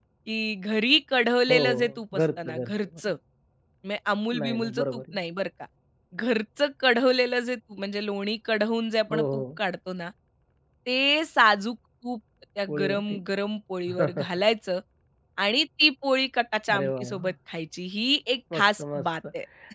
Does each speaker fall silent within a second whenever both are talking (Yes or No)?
No